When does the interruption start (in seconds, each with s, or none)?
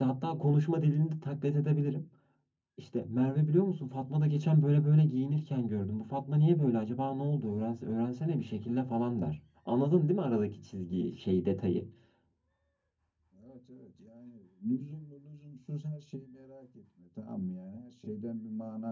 none